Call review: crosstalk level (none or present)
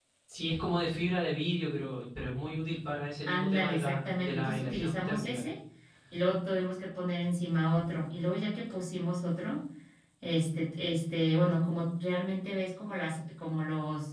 present